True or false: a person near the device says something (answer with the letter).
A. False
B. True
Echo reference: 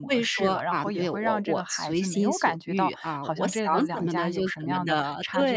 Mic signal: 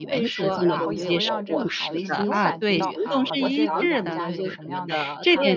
B